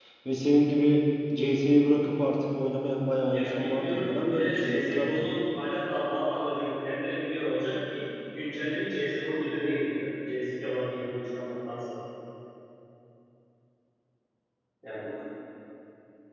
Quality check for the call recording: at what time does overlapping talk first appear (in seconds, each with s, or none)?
3.3 s